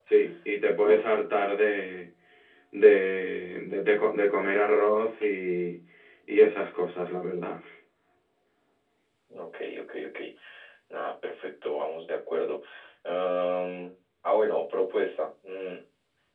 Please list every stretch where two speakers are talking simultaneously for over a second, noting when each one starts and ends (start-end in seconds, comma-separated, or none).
none